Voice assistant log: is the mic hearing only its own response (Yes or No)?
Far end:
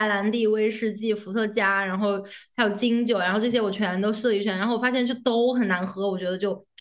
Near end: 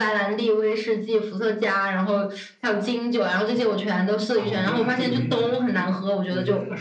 No